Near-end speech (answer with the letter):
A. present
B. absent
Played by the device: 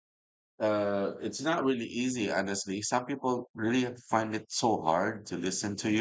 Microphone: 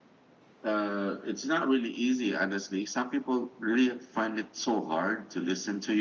B